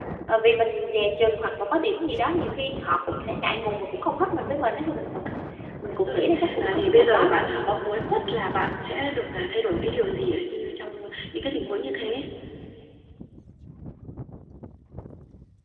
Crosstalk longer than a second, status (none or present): present